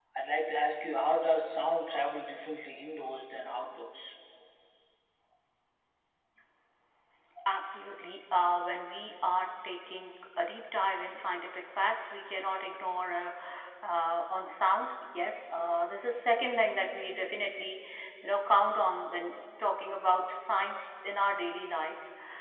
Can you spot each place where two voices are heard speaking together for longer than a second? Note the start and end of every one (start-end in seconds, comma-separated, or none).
none